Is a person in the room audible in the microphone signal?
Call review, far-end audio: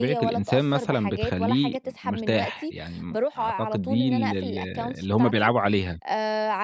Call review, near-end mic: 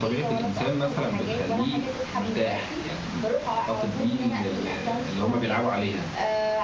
No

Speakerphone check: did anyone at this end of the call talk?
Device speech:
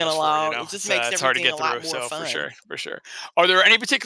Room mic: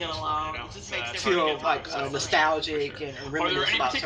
Yes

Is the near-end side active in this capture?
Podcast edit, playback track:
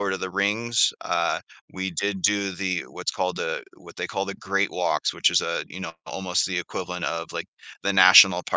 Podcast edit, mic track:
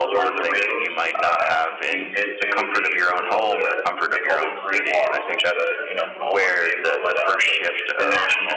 Yes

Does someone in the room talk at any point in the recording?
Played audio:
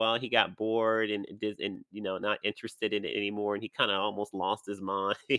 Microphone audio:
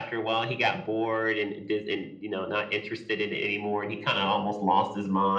No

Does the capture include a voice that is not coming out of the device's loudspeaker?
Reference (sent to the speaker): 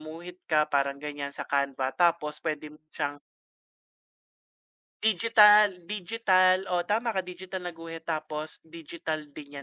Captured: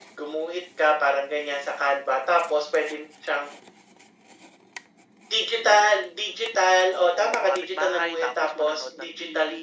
Yes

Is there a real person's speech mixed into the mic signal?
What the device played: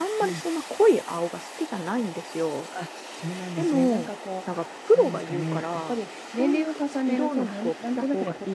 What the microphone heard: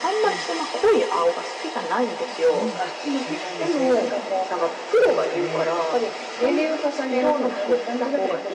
Yes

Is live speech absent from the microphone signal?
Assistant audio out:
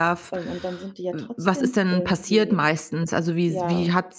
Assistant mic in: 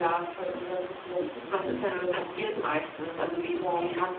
Yes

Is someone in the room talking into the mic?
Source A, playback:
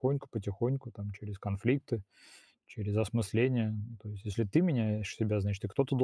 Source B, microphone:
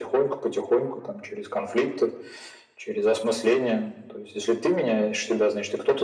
No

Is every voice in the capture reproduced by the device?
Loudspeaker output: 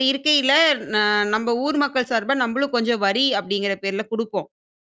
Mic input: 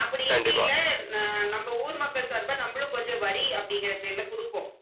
No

